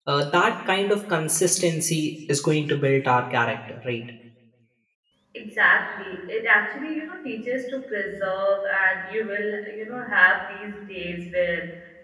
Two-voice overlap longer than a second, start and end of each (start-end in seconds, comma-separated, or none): none